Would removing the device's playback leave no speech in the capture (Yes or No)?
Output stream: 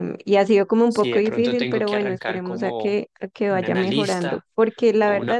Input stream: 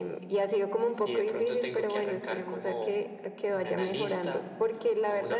Yes